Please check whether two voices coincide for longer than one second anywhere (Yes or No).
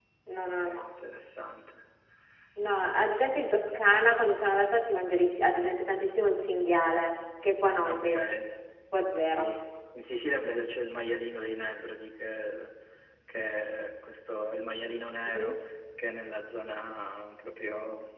No